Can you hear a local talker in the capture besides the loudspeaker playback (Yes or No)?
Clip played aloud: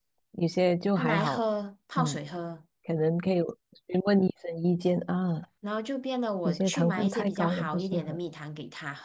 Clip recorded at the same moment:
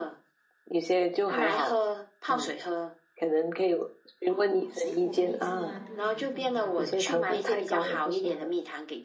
Yes